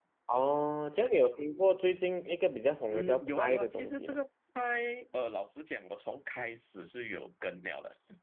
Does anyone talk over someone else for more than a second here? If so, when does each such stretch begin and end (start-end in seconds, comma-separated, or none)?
2.9-4.2